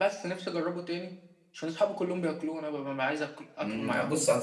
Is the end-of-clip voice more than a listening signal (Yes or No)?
Yes